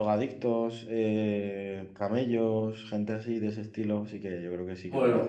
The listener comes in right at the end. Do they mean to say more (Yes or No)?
Yes